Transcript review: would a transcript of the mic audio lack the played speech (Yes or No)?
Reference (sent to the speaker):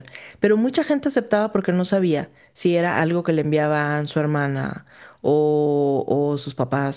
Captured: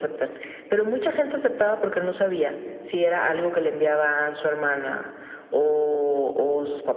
No